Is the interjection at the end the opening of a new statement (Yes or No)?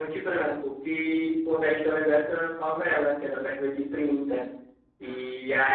No